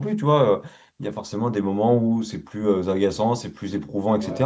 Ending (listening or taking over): listening